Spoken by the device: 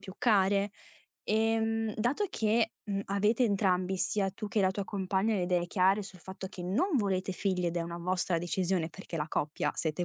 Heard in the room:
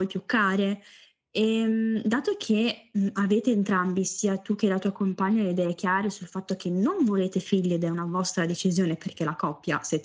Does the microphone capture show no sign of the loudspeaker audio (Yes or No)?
No